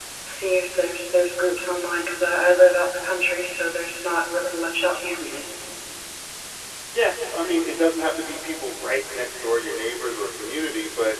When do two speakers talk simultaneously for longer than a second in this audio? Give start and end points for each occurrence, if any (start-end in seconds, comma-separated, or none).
none